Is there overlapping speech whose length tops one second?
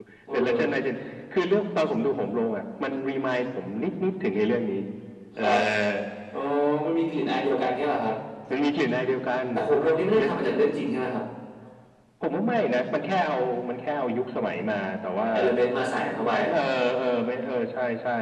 No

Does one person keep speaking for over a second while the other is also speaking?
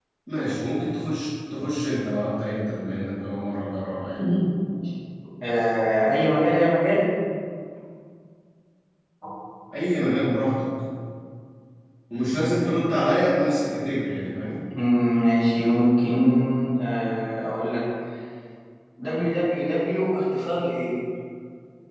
No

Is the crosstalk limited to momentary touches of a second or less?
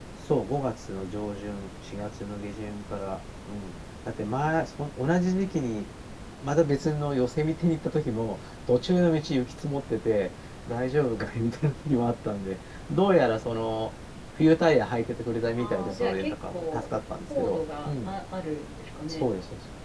No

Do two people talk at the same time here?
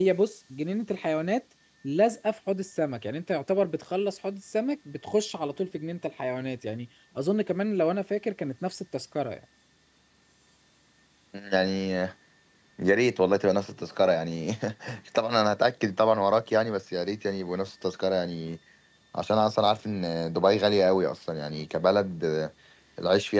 No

